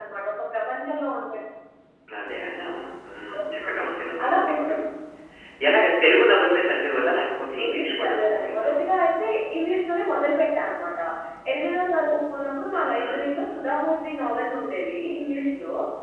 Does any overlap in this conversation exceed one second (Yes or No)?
Yes